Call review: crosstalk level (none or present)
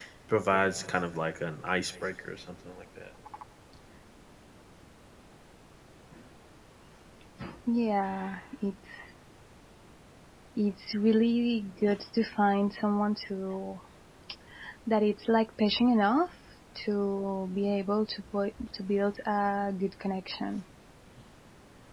none